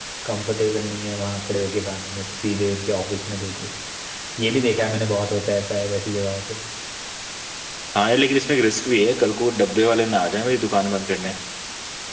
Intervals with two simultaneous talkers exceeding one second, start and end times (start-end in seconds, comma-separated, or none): none